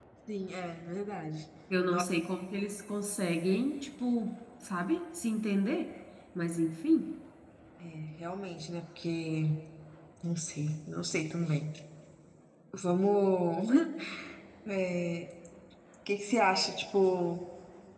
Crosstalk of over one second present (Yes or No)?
No